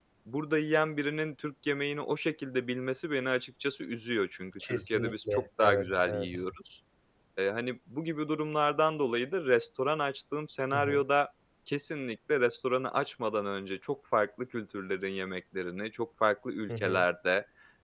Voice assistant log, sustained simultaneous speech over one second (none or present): present